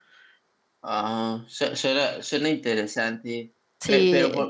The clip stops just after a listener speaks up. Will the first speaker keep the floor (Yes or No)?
Yes